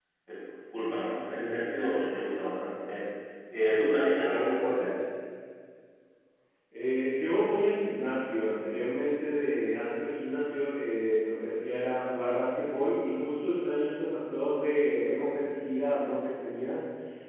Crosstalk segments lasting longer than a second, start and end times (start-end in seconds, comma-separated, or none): none